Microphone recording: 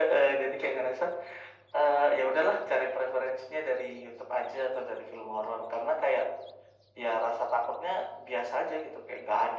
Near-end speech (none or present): none